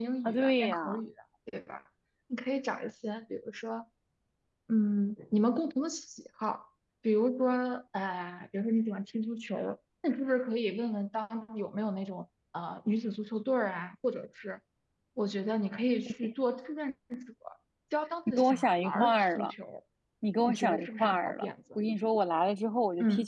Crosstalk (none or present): present